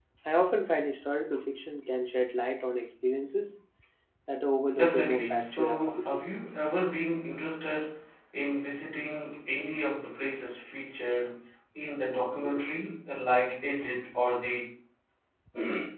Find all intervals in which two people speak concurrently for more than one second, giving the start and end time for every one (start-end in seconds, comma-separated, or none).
4.8-6.1